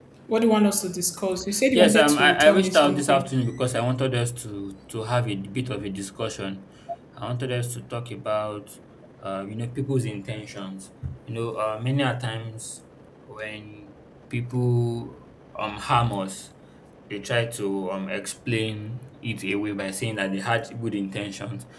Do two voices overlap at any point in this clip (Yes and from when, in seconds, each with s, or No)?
Yes, from 1.7 s